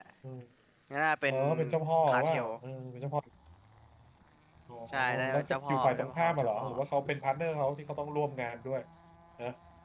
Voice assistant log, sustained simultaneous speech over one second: present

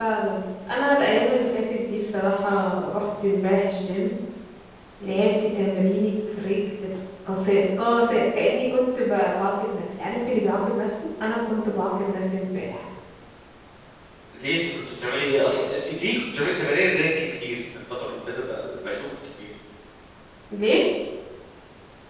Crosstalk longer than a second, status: none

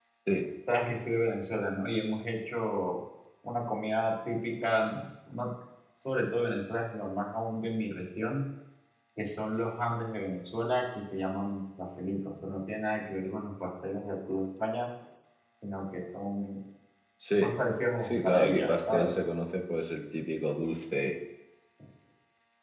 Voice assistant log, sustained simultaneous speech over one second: present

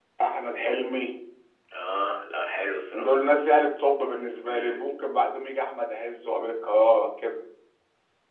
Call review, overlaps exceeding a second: none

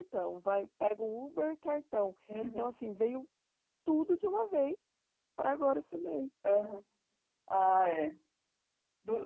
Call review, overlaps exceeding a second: none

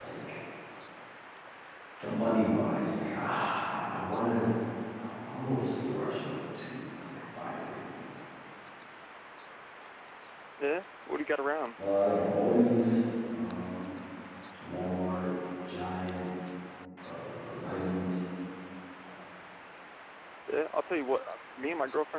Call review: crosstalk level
none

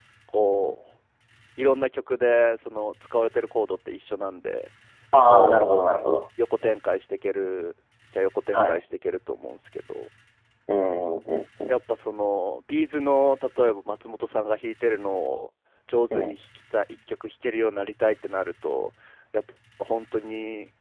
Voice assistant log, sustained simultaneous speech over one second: none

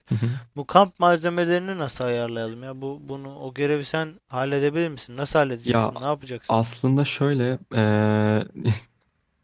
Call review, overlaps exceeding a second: none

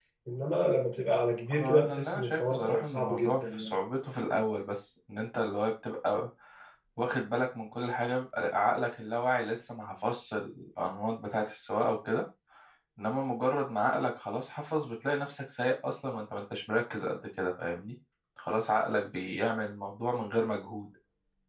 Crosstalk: present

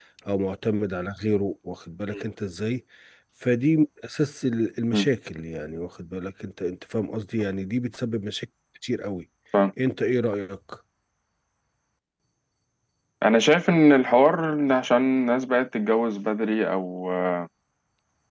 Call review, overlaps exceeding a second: none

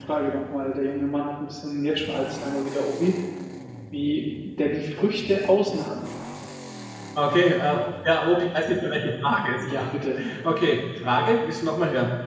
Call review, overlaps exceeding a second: none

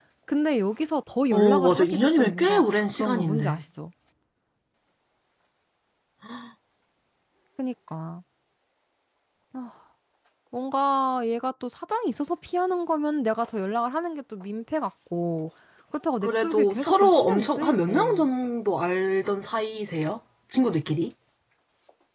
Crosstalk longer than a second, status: present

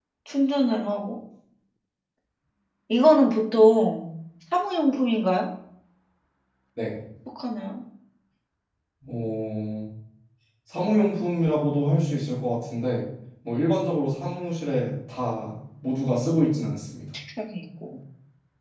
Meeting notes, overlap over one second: none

